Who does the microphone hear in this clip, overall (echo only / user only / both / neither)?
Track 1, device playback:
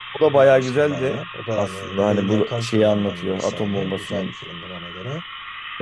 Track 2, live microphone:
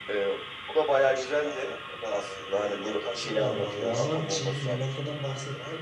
both